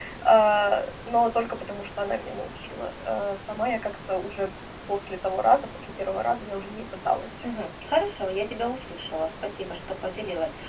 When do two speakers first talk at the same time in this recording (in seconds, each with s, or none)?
none